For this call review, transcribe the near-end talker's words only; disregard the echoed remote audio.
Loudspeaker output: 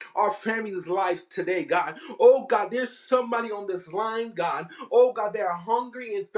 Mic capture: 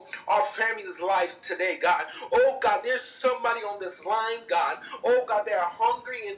none

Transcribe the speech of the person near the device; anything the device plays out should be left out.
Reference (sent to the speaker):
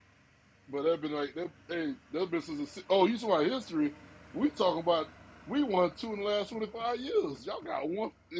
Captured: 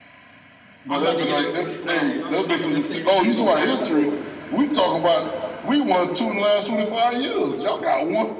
I'm about to get on Six Flags. All right, When I go to that stadium, I'm gonna go back and forth.

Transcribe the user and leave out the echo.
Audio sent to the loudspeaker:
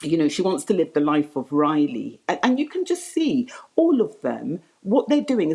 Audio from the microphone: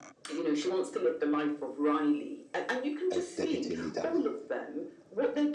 uh, deputy leader.

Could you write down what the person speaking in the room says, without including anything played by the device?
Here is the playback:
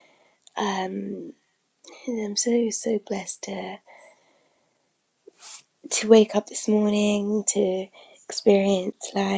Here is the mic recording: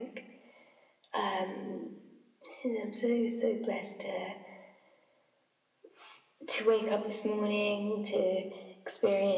none

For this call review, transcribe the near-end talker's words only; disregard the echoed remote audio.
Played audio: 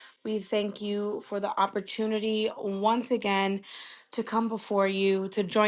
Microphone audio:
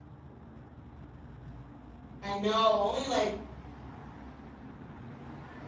I know. Only like

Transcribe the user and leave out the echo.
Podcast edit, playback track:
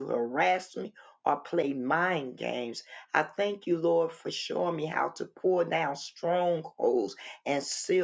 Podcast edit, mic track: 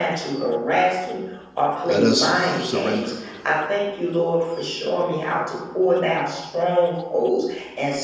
Let us surrender

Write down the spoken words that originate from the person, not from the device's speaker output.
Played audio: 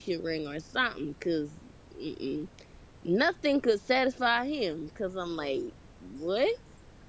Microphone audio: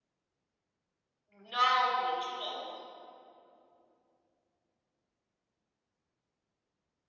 know. No, bitch, you know who-

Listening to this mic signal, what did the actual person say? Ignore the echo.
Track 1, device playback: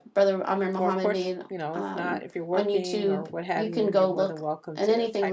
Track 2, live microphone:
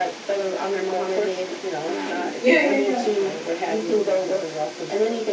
yeah, yeah, yeah.

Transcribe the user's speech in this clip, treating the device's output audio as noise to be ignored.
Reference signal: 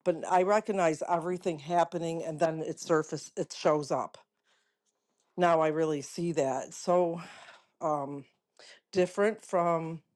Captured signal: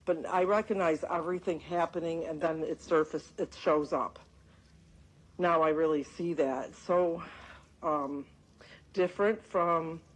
none

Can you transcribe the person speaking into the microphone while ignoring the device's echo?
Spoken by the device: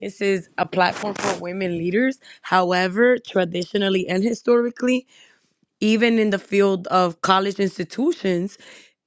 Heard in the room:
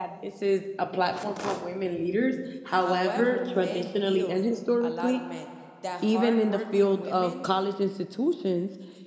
However, men feel a lot of men that hardworking women

